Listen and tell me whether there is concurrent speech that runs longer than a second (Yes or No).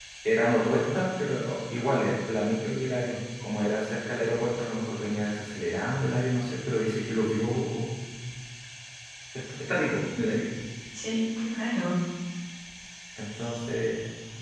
No